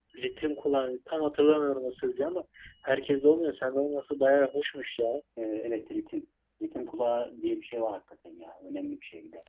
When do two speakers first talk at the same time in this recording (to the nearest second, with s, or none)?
none